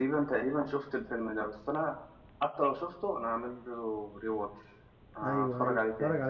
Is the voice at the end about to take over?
Yes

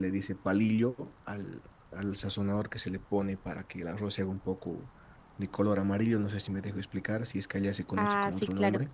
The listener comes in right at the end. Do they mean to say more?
Yes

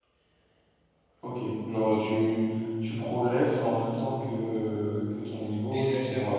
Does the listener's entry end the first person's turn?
Yes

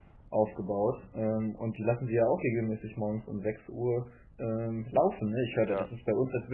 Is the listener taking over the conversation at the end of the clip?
No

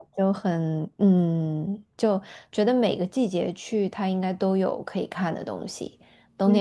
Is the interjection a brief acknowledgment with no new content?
Yes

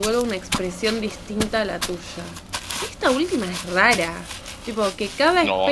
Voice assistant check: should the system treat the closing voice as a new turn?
Yes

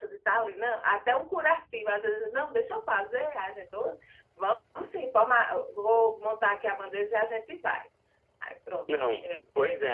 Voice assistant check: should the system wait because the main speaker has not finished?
No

